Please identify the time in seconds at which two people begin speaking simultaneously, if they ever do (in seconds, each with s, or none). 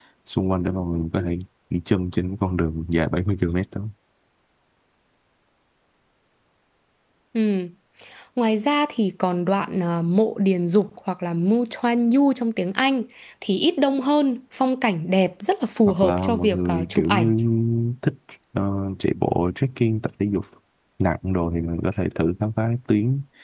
15.8 s